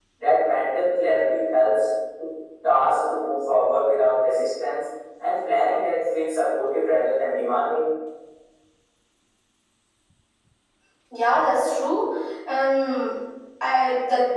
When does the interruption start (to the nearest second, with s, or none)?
none